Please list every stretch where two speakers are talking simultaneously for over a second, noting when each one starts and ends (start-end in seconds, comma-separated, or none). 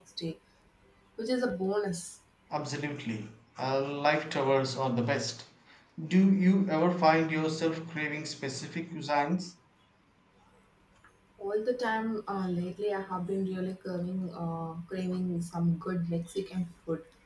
none